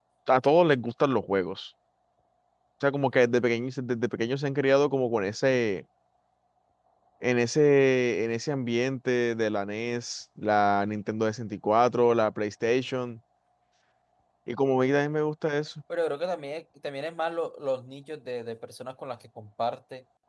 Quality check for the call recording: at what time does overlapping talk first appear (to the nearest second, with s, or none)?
none